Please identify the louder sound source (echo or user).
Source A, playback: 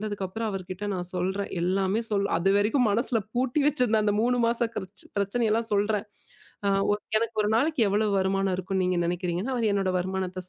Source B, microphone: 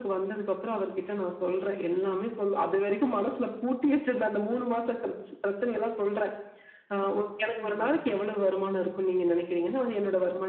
echo